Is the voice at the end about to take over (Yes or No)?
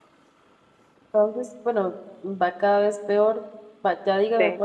No